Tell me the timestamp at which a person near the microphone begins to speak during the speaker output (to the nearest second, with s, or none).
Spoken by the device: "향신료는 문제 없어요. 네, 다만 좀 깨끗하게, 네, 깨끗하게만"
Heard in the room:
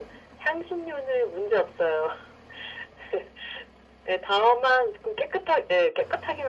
none